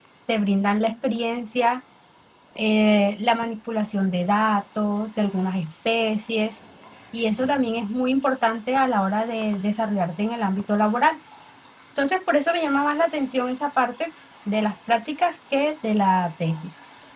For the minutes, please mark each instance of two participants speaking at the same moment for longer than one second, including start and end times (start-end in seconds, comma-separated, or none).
none